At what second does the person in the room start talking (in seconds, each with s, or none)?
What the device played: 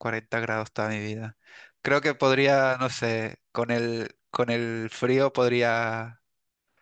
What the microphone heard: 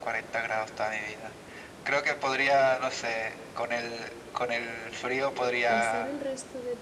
5.7 s